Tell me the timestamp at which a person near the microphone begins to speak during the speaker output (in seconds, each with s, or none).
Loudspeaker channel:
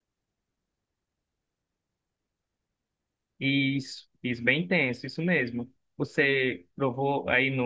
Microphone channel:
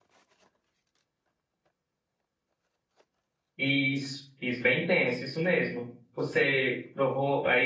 none